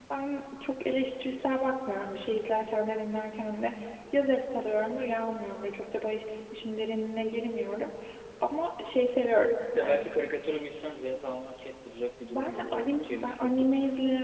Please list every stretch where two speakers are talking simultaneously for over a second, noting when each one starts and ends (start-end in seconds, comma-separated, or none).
12.3-13.5